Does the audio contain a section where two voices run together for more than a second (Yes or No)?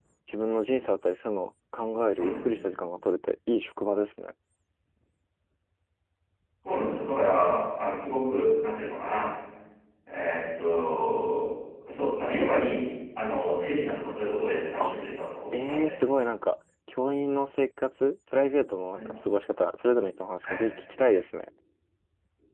No